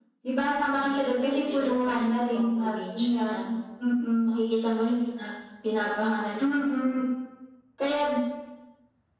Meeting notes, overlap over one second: present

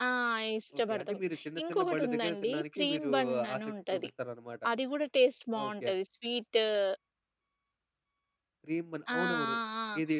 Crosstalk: present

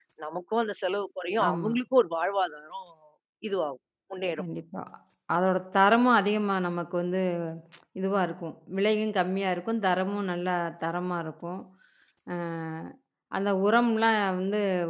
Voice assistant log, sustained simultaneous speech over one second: none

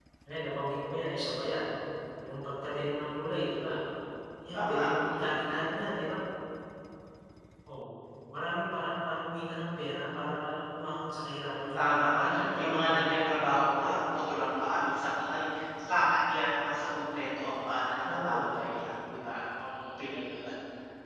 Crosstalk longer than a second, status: present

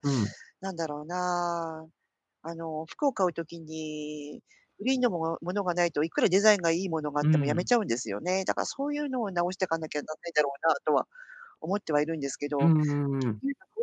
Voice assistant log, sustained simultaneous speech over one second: none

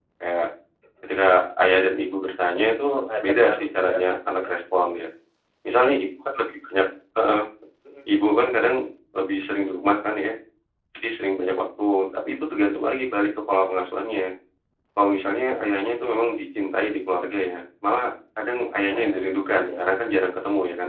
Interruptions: present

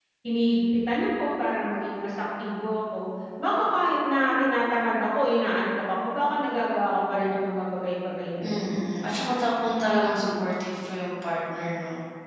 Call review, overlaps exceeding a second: none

